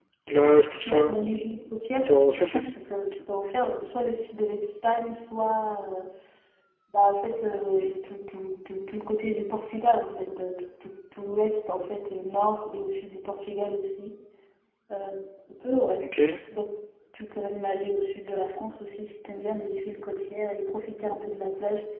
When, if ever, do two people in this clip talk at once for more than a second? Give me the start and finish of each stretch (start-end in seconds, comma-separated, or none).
none